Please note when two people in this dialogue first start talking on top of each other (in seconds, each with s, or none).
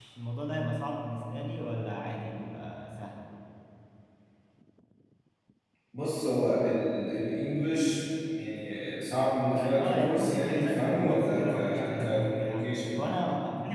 9.6 s